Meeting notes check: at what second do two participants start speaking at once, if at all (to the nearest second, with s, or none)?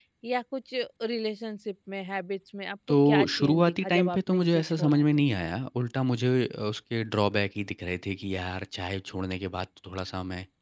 3 s